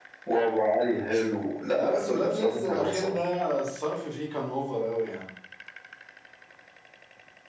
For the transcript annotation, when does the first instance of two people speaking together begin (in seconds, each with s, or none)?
1.7 s